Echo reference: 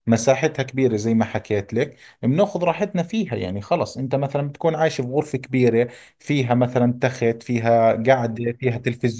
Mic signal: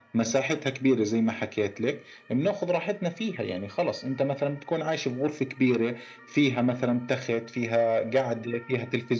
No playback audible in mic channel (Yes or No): No